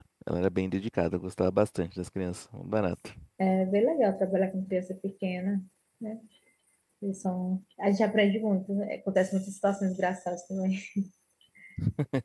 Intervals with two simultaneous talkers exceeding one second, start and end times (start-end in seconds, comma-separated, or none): none